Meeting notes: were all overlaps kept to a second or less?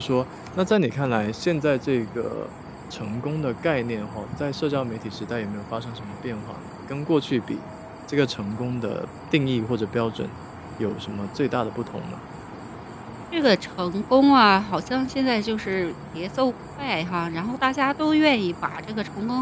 Yes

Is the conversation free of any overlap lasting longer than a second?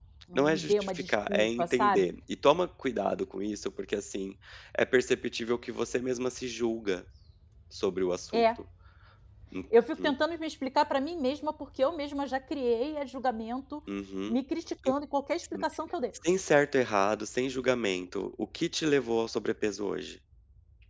No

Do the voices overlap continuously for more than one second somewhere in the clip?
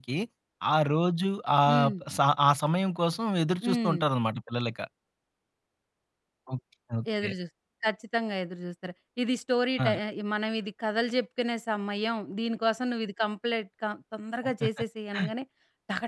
No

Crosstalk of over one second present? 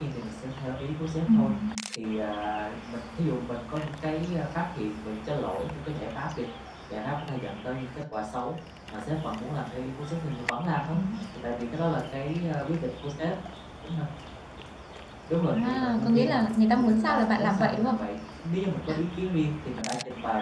Yes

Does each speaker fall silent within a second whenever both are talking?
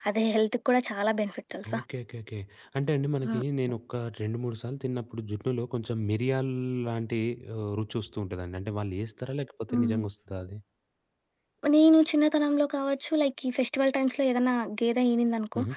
Yes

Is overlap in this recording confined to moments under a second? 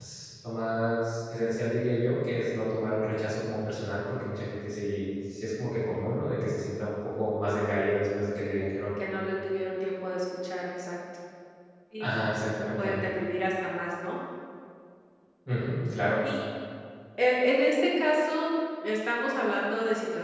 Yes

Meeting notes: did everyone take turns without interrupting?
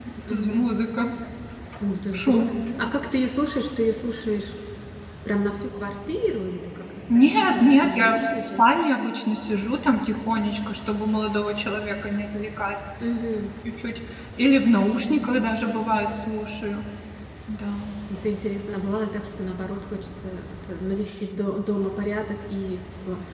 No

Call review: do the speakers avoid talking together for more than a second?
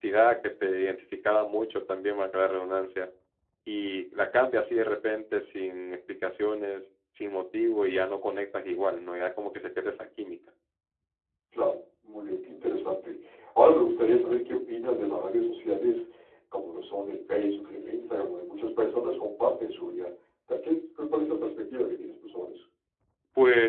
Yes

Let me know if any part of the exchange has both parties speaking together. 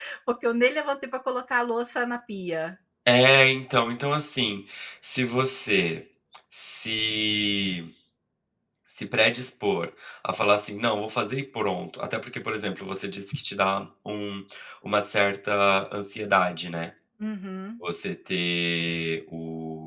No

